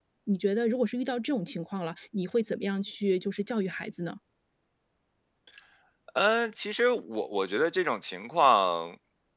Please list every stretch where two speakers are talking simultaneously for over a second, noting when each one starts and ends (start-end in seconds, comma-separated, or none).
none